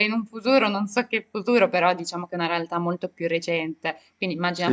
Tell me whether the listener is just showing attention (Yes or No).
Yes